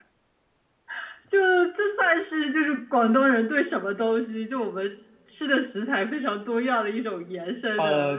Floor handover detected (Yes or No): Yes